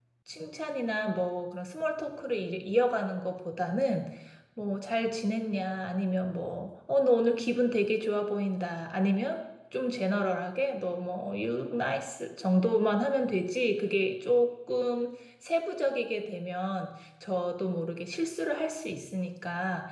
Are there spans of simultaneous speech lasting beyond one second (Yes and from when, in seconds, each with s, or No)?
No